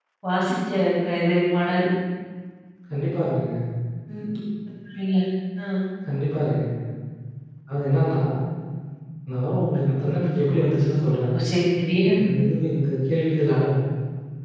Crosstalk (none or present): none